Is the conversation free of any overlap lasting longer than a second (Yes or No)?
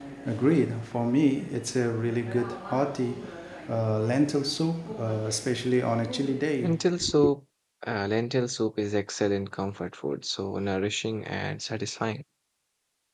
Yes